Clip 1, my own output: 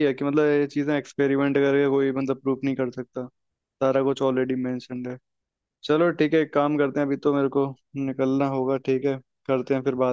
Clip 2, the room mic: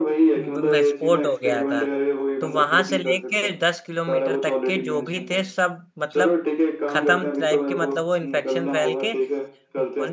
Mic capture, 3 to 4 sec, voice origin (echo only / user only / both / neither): both